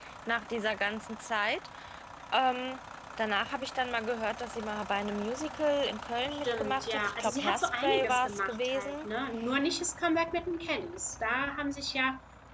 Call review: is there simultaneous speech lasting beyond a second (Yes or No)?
Yes